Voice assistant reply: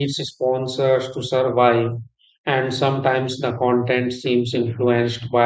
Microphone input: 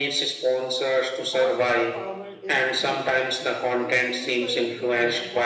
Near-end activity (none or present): present